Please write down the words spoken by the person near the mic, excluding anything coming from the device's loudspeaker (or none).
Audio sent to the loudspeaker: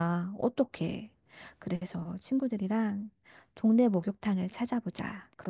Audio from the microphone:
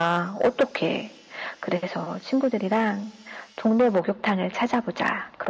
none